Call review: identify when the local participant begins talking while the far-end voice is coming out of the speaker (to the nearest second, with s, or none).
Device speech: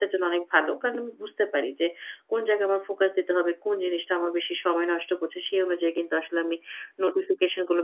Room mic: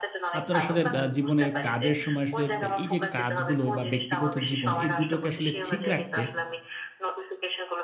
0 s